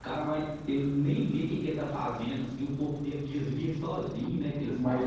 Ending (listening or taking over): taking over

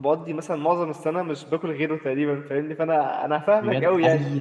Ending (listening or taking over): taking over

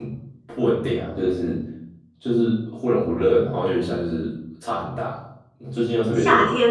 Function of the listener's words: taking over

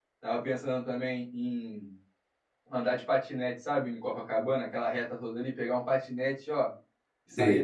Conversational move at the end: taking over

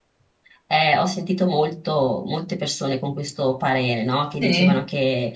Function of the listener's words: listening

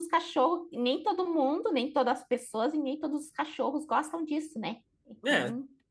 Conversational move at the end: taking over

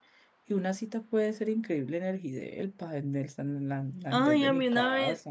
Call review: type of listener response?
taking over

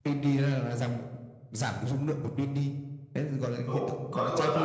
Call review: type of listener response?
taking over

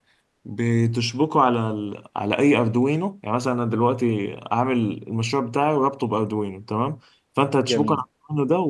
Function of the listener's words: listening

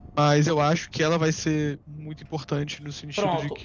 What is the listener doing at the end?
taking over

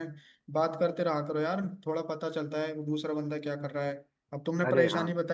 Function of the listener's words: listening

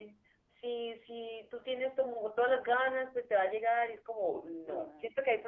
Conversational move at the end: listening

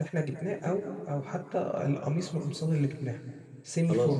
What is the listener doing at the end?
taking over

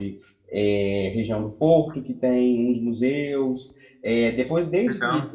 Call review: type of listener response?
listening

